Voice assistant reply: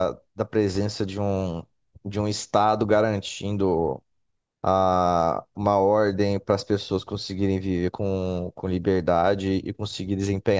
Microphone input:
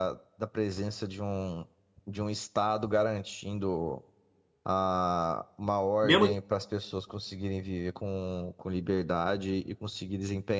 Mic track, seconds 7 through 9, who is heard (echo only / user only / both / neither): echo only